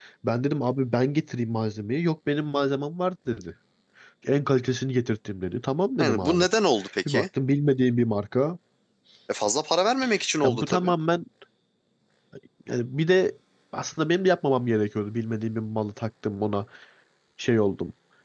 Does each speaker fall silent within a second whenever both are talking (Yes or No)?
Yes